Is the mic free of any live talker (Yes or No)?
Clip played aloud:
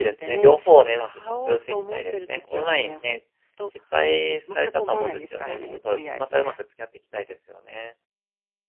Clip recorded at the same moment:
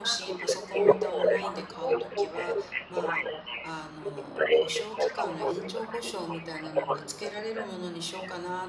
No